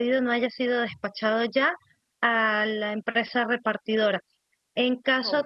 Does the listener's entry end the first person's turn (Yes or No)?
No